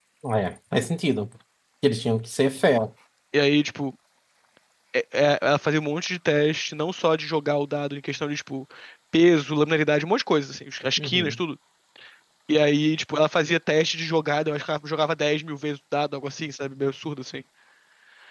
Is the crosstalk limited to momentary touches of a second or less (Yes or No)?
Yes